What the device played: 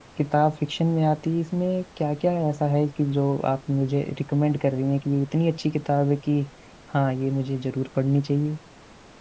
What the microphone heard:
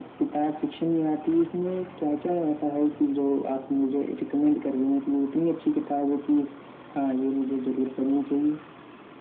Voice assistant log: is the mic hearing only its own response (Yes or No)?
Yes